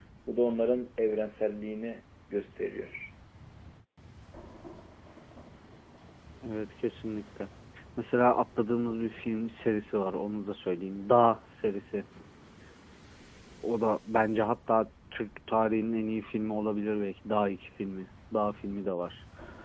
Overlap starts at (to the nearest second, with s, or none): none